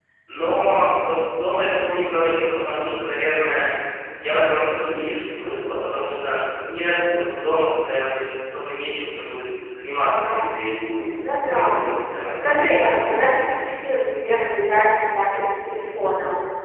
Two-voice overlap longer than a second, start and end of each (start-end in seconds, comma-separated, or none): 12.2-13.5